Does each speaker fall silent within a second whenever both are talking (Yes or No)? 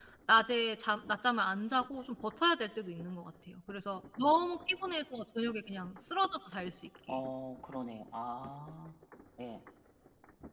Yes